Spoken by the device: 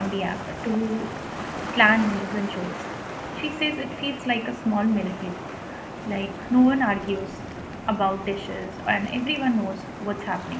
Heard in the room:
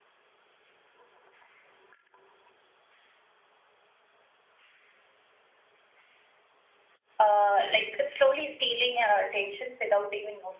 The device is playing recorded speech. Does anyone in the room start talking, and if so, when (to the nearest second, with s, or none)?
7 s